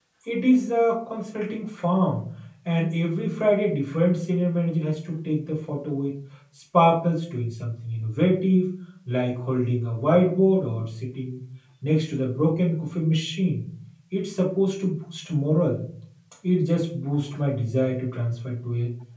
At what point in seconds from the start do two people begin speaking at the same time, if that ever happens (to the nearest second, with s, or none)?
none